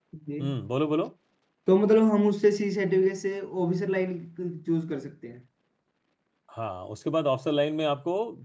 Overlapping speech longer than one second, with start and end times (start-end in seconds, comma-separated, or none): none